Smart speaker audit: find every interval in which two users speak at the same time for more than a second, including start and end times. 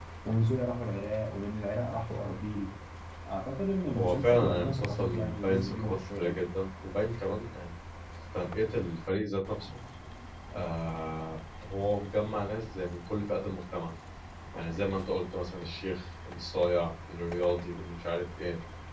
3.9-6.4

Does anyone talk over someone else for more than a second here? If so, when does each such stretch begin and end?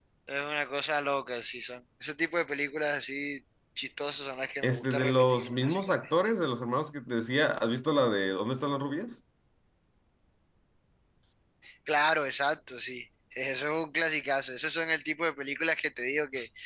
4.6-6.1

